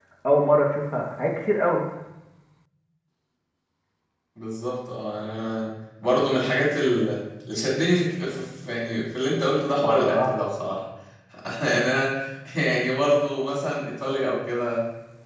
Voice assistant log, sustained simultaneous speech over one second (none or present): none